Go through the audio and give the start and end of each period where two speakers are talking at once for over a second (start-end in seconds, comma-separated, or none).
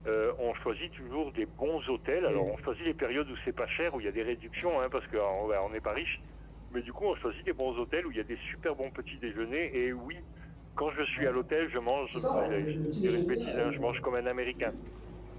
12.1-14.0